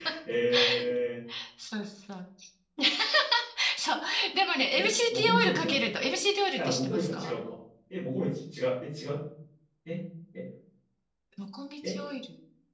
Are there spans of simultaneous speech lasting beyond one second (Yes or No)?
Yes